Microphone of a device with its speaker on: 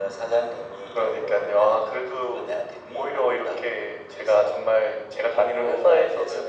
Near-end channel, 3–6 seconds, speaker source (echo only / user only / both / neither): echo only